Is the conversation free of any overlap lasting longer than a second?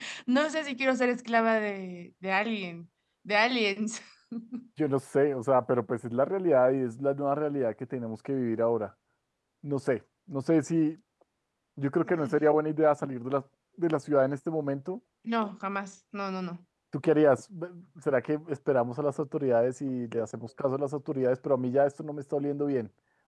Yes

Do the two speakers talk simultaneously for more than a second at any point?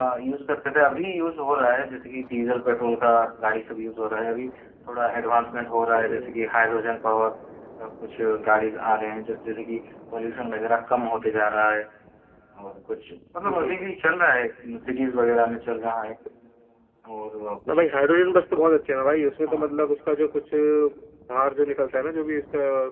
No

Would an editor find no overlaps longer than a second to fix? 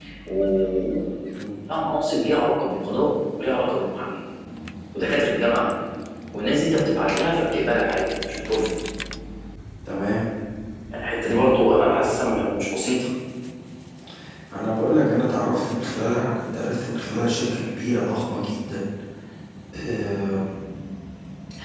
Yes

